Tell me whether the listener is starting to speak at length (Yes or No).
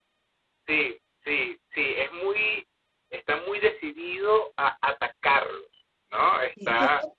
Yes